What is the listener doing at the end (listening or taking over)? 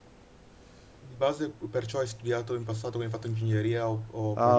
taking over